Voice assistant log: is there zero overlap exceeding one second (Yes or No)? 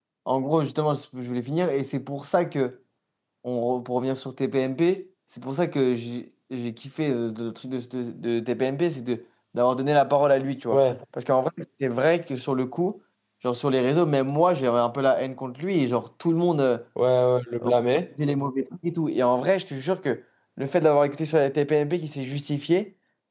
Yes